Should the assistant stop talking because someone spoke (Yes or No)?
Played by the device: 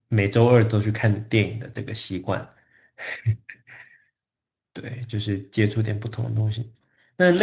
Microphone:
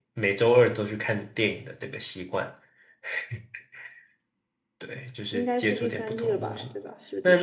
Yes